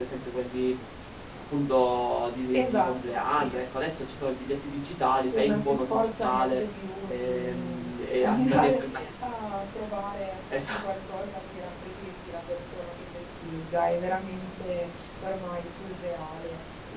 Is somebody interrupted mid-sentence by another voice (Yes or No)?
Yes